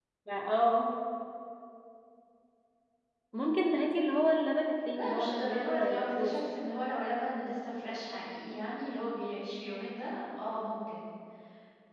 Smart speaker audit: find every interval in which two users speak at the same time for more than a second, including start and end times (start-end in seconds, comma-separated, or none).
4.9-6.3